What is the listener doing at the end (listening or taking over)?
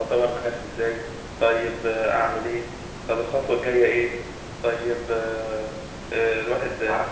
listening